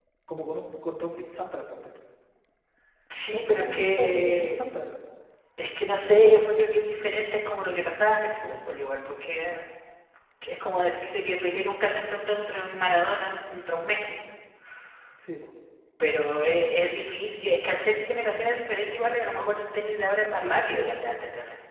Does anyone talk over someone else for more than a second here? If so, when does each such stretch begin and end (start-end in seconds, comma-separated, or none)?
3.3-4.6